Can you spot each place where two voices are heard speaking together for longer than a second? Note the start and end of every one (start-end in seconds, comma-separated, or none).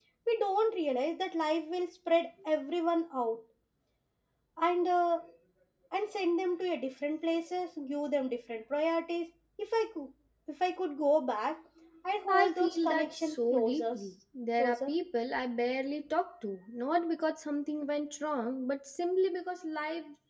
12.3-13.9